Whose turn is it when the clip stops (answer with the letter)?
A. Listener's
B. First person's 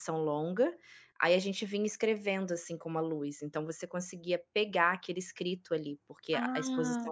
A